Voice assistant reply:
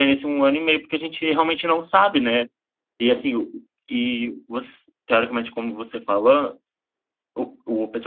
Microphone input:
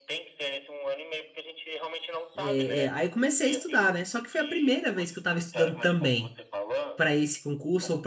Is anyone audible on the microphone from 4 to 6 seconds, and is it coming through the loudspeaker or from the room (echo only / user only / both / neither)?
both